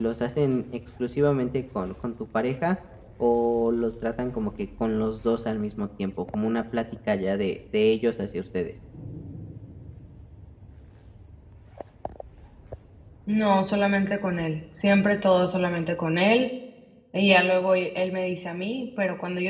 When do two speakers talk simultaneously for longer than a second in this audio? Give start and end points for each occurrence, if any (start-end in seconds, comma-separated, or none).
none